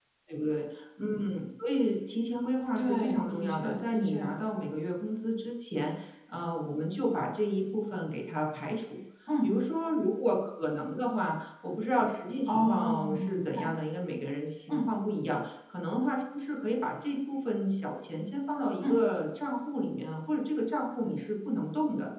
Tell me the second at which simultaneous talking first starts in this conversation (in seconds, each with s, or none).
2.8 s